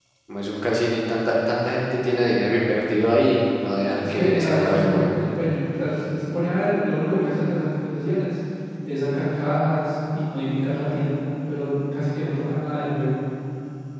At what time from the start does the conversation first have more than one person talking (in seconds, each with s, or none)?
4.0 s